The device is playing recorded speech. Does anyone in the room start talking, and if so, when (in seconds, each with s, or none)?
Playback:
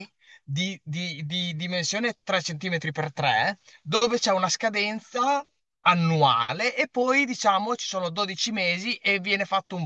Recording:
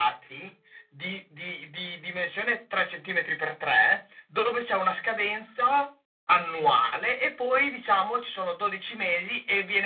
none